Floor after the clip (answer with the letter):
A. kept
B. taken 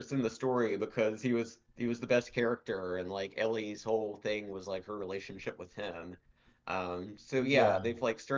A